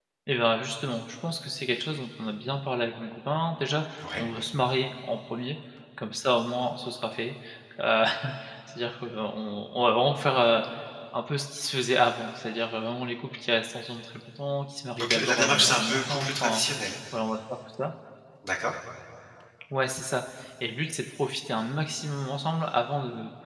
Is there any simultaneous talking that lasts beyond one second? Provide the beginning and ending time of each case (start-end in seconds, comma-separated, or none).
15.0-16.6